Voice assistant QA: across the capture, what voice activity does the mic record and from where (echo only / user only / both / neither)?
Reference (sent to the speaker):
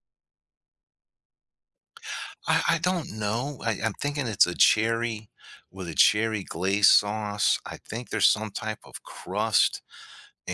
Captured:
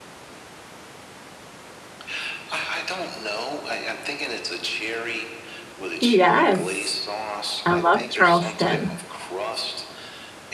both